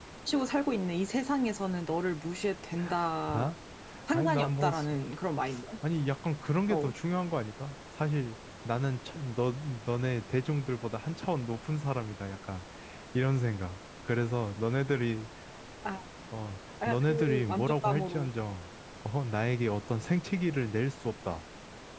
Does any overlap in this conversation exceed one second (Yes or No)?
Yes